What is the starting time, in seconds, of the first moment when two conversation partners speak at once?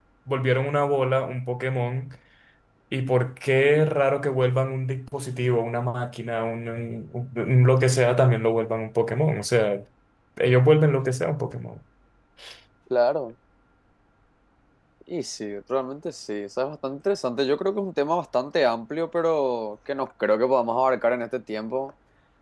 none

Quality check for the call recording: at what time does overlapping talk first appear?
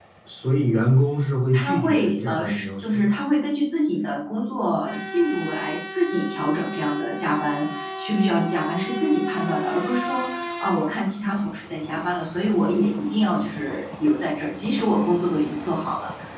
2 s

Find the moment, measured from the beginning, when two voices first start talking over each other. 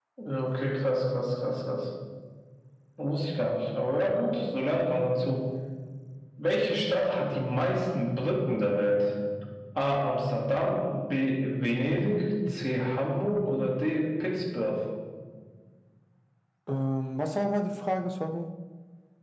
none

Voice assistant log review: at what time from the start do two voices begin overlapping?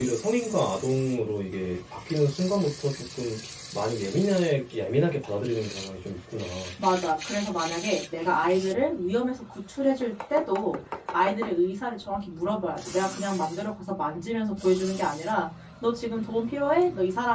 none

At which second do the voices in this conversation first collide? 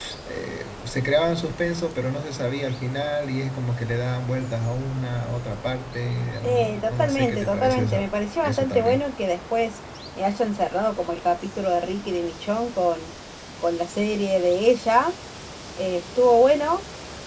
6 s

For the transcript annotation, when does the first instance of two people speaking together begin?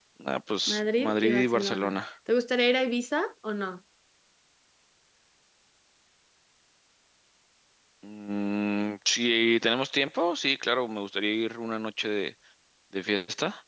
1 s

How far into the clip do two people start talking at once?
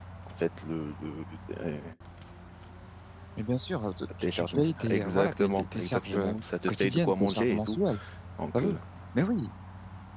4 s

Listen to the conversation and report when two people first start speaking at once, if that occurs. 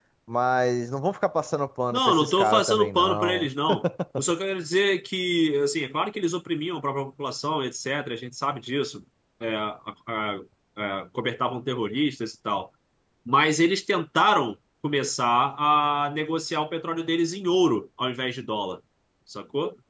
2 s

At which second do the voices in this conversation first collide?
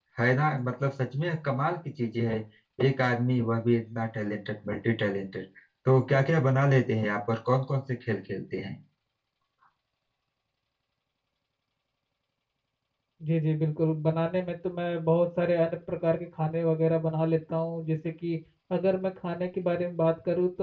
none

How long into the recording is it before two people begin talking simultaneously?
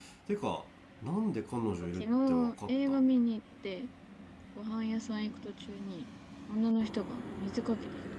2 s

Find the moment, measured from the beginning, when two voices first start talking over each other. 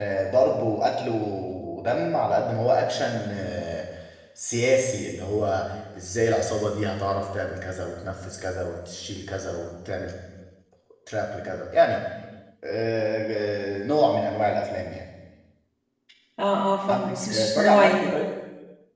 17 s

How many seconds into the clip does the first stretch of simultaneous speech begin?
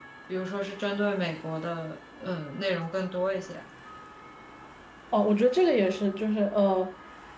none

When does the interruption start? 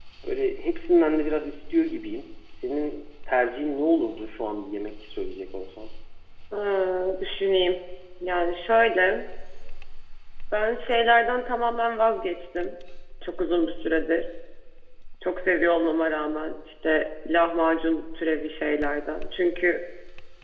none

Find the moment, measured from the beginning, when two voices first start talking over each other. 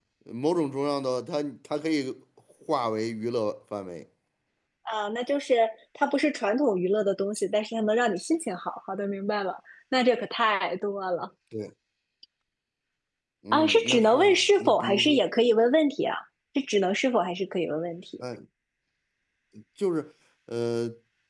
14 s

